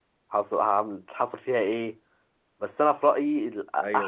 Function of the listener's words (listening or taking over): taking over